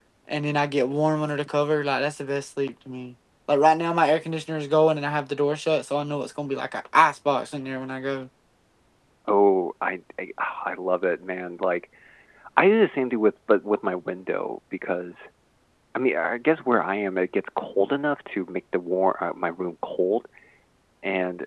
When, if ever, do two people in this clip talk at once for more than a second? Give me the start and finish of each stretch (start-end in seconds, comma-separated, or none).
none